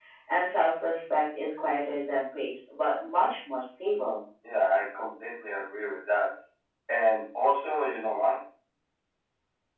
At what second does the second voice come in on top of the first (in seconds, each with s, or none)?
none